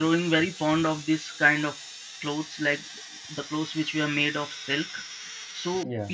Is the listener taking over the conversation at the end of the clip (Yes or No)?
No